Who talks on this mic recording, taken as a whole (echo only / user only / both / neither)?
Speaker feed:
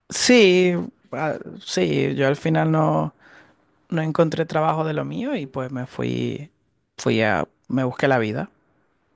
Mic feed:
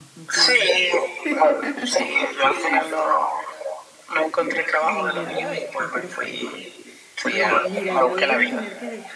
both